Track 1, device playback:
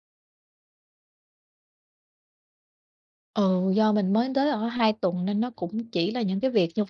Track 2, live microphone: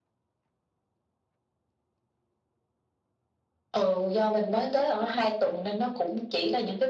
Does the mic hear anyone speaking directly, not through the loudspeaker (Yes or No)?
No